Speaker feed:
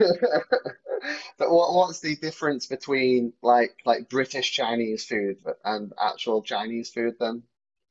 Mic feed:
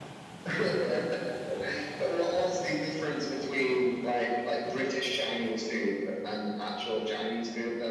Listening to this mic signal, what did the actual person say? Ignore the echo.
none

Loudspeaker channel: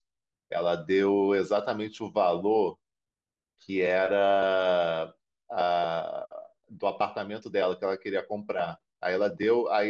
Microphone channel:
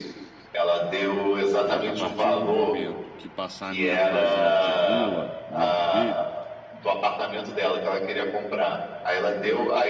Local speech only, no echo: É, a partir do momento que passar a minha fase de gula dentro dele,

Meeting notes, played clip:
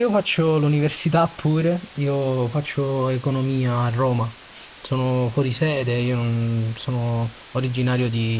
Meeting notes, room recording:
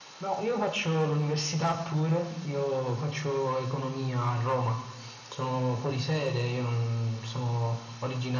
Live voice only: none

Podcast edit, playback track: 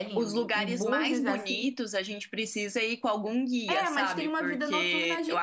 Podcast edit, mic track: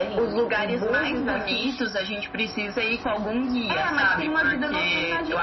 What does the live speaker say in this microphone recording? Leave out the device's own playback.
none

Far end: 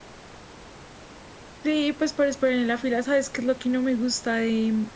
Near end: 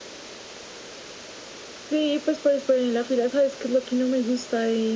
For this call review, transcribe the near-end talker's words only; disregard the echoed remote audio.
none

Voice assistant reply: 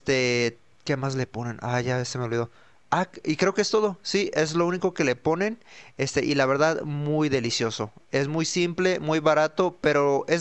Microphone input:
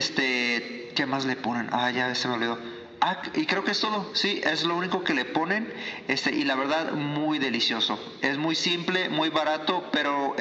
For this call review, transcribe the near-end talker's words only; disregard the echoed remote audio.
none

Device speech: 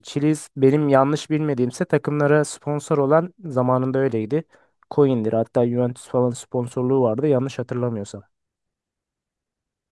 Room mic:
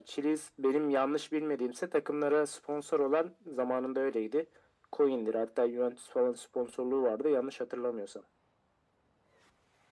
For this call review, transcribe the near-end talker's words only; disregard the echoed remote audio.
none

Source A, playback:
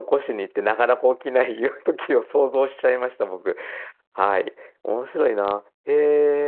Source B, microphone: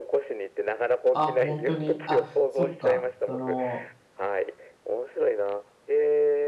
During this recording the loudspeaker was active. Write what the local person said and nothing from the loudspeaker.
あ、本当に。あ、そっか。その、

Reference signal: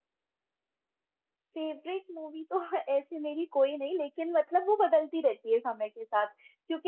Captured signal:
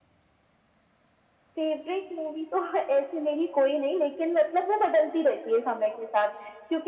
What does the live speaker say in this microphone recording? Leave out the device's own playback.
none

